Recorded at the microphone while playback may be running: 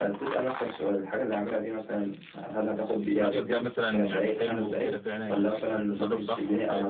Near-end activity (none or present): present